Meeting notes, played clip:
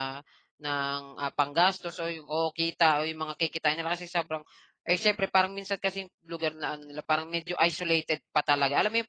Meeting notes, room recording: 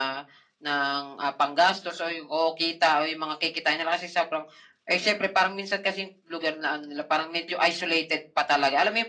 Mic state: echo only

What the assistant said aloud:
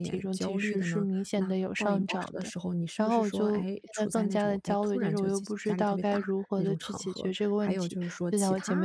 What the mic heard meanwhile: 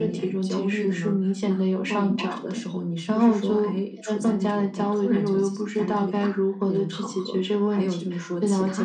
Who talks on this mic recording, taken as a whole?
echo only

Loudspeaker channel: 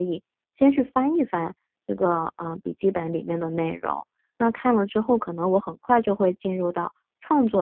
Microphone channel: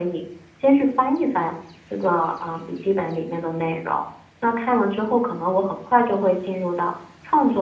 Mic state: echo only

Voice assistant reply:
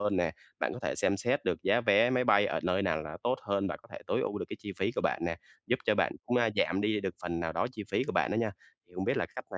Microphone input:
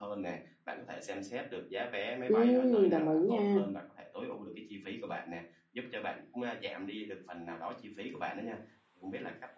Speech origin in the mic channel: both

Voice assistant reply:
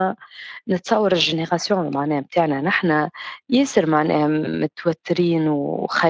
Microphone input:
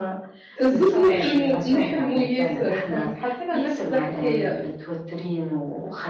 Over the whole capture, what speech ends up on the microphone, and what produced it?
both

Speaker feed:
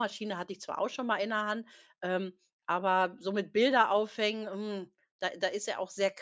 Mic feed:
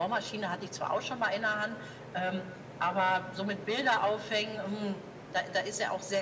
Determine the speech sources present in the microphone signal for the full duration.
echo only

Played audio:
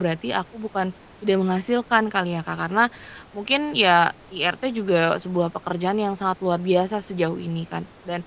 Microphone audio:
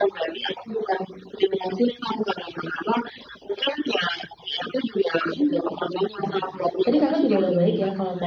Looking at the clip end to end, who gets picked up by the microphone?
both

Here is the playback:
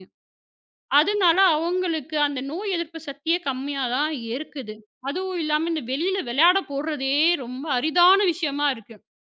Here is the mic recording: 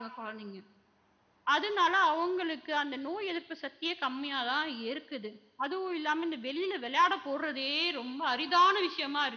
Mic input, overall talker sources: echo only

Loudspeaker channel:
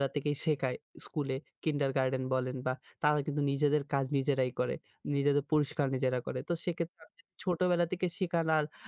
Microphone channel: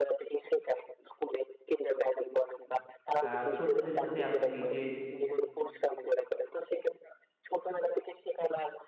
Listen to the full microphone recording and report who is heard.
both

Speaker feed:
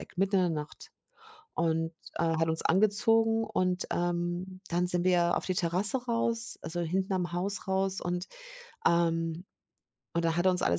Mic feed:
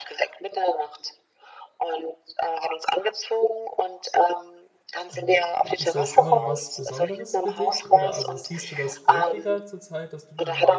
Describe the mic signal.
both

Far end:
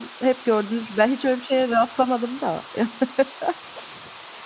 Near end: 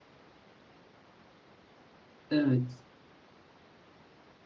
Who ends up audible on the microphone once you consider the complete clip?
user only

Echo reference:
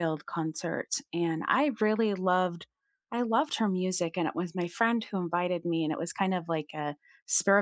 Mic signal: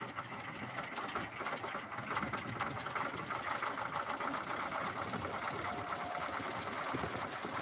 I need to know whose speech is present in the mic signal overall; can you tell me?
neither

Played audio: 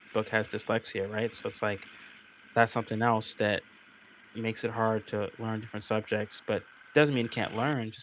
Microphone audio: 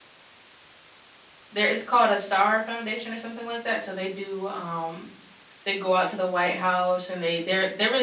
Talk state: user only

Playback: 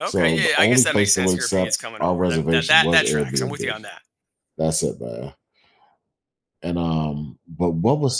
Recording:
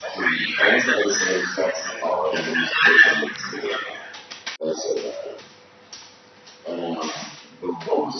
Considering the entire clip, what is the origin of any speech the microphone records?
echo only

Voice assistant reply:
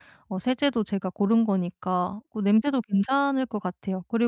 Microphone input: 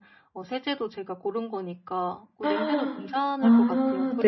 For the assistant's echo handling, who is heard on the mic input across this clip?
both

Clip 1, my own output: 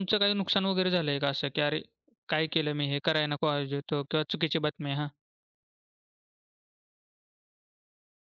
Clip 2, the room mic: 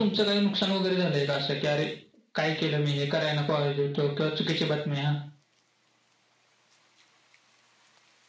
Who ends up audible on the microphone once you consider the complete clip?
echo only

